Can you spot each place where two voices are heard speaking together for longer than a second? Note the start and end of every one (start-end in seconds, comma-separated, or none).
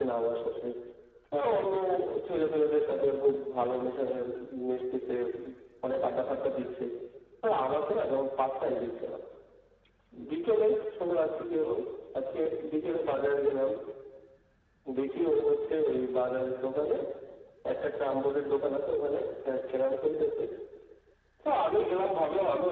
none